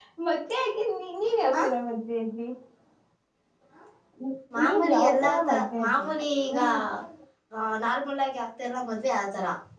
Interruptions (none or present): present